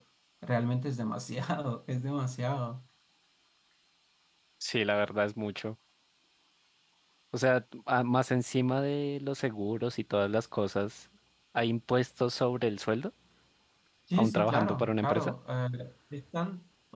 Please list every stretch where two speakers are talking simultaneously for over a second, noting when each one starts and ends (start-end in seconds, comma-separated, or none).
14.1-15.3